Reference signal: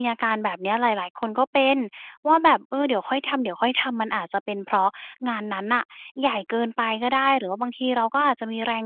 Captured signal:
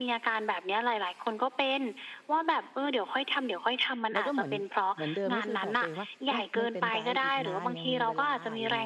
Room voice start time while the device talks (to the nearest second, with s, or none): 4 s